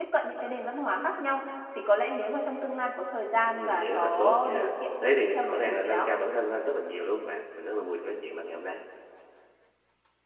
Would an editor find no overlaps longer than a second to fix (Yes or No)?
No